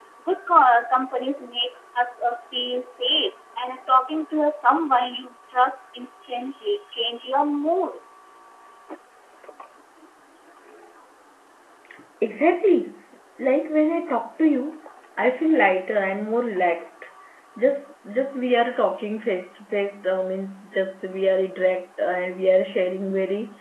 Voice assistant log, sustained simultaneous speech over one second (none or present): none